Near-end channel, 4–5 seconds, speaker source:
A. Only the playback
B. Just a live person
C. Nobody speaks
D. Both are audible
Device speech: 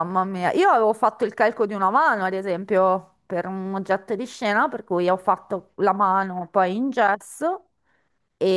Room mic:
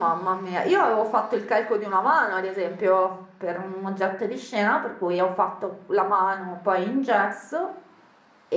A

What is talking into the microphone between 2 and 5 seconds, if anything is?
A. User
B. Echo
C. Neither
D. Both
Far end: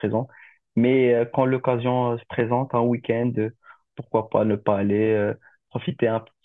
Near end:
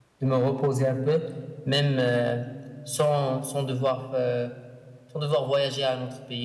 A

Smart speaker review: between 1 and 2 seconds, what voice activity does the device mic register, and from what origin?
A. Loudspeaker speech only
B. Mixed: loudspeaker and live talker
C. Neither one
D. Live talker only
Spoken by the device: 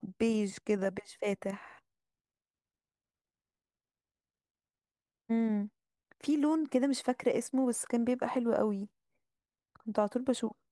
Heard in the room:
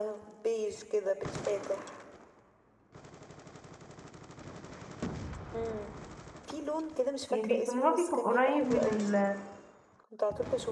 A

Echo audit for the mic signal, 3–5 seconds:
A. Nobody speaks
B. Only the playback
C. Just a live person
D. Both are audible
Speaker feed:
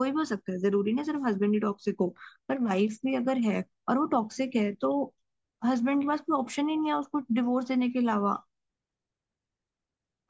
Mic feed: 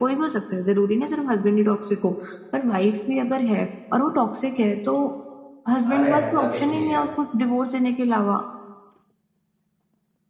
B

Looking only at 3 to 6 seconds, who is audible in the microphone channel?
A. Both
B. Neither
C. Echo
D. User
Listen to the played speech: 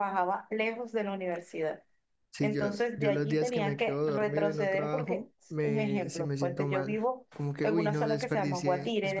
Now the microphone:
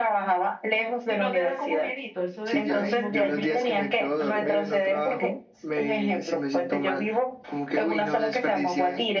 A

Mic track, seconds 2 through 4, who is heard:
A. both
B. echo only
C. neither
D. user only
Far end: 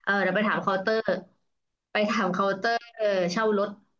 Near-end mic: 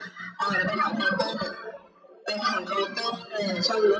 B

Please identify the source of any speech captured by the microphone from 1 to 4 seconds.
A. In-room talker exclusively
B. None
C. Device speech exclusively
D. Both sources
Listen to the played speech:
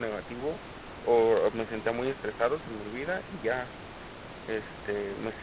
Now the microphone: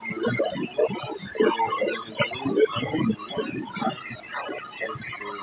C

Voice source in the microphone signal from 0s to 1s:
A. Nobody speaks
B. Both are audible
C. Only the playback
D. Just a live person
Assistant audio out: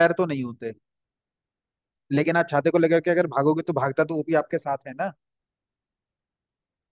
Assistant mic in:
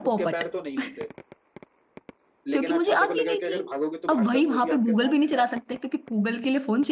B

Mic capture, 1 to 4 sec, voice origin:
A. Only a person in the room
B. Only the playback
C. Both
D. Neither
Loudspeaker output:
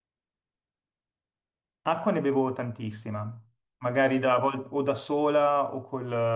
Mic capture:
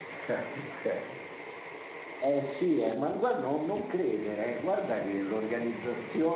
A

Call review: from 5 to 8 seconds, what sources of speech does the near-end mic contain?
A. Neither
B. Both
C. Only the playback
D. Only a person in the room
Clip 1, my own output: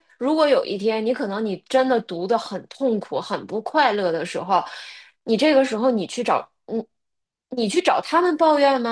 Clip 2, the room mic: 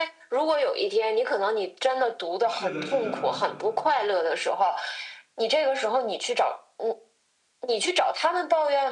C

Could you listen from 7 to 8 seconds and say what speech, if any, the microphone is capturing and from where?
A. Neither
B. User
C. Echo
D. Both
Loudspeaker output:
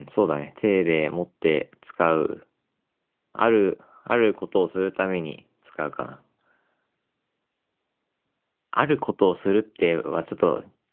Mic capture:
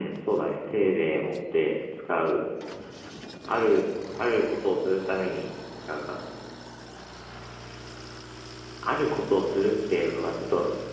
A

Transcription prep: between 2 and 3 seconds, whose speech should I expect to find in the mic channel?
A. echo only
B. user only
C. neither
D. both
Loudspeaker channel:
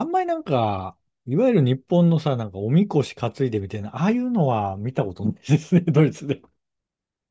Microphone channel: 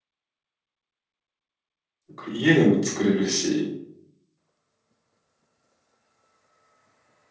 B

